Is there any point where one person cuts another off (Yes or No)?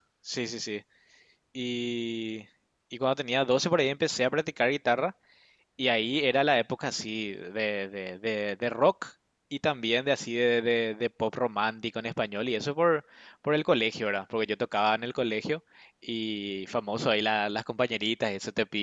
No